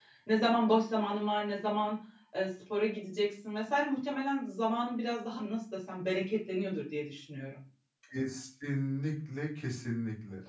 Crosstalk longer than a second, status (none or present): none